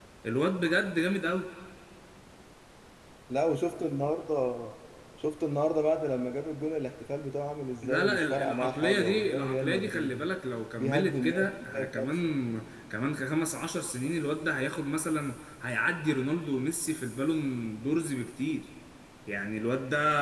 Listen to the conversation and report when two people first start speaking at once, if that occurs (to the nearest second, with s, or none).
8 s